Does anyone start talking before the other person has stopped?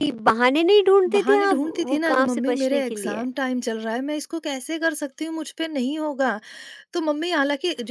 Yes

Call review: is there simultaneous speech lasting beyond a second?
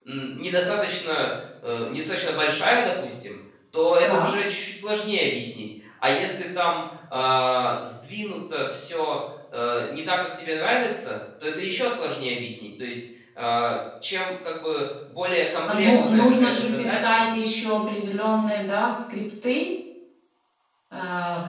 Yes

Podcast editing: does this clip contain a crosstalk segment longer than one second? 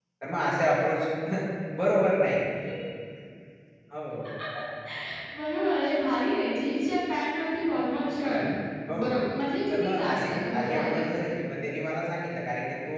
Yes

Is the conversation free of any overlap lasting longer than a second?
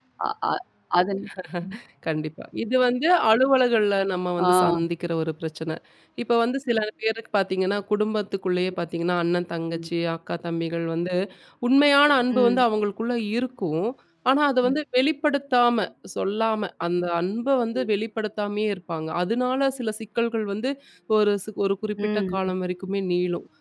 Yes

